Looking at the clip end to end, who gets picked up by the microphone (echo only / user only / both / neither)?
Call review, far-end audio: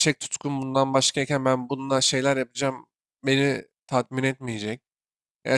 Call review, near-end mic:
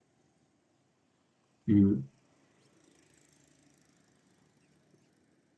user only